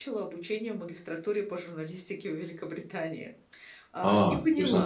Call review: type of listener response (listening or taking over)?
taking over